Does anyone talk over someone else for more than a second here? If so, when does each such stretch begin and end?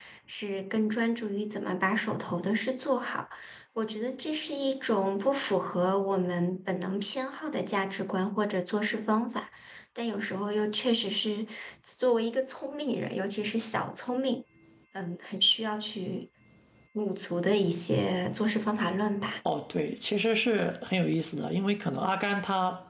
none

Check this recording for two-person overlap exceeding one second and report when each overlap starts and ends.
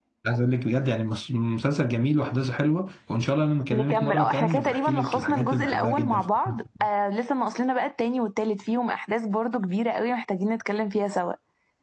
3.7-6.6

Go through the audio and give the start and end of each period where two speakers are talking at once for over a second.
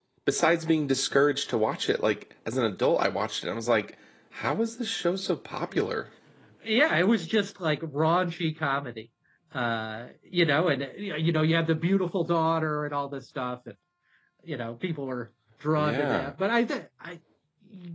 none

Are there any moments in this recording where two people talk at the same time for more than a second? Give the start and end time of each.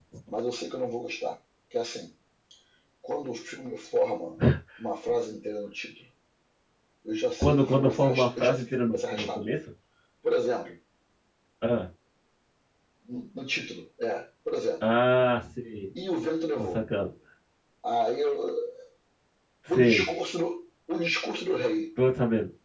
7.4-9.4

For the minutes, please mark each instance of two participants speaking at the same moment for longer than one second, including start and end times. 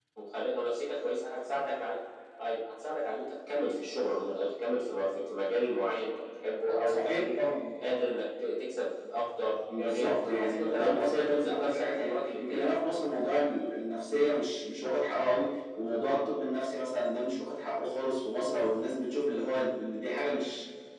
9.8-12.7

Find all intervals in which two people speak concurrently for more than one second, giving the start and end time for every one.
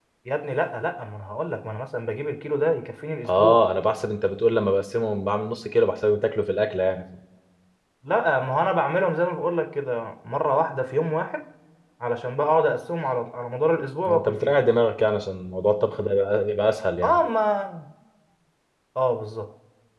none

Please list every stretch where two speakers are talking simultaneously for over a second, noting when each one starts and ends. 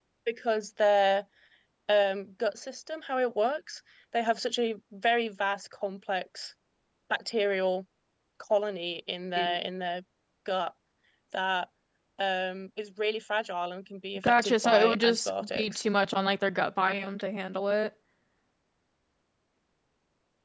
14.2-15.8

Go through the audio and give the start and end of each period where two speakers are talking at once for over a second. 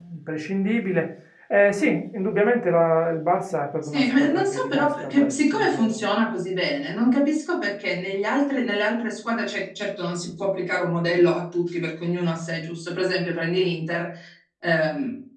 3.8-6.0

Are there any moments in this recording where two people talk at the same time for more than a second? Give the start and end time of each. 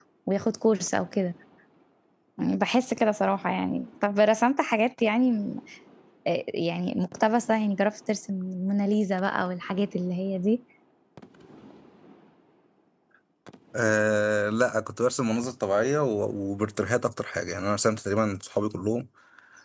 none

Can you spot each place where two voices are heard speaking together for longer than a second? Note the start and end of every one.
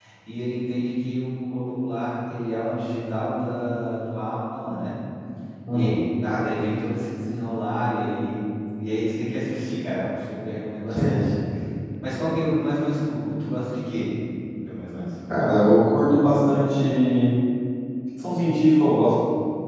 none

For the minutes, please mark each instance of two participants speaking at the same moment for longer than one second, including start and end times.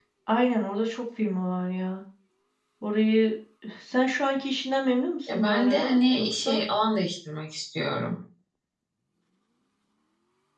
5.3-6.6

